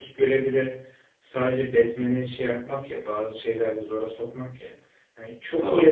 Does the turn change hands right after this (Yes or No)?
No